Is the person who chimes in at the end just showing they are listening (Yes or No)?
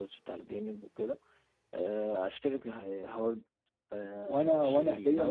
No